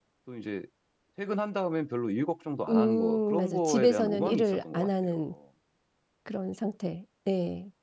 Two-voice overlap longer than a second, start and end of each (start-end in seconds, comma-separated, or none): 2.7-5.3